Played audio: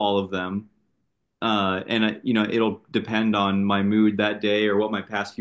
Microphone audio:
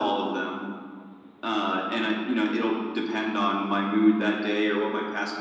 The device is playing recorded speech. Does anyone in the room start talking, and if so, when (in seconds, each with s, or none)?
none